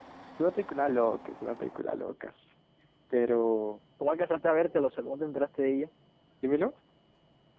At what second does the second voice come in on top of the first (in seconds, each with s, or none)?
none